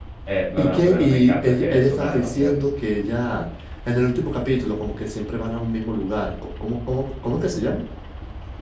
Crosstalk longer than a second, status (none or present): present